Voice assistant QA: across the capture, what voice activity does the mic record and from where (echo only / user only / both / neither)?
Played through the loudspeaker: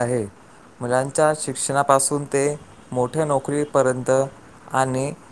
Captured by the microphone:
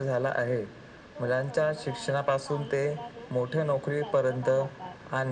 both